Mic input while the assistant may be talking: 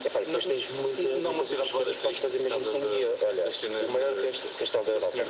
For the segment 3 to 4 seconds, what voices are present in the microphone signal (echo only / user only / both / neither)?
echo only